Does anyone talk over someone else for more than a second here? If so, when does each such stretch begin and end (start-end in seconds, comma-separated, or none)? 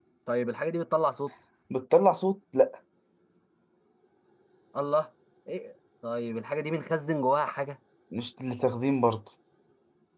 none